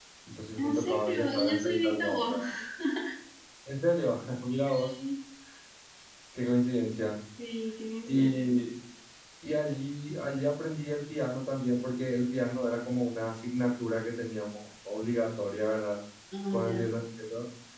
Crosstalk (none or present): present